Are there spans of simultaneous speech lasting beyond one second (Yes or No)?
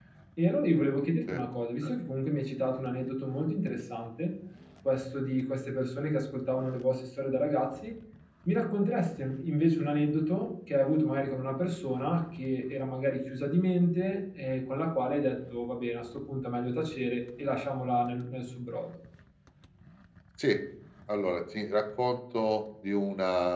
No